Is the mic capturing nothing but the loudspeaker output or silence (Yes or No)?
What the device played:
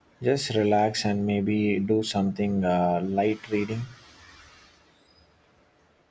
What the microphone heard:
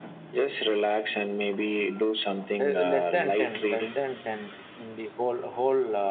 No